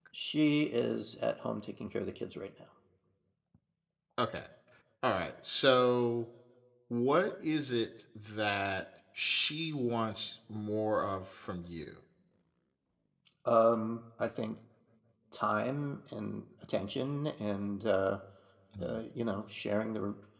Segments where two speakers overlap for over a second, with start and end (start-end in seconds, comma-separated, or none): none